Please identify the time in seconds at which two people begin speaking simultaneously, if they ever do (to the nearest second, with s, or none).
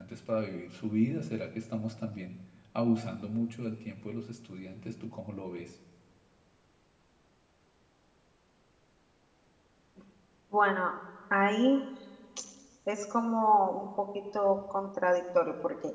none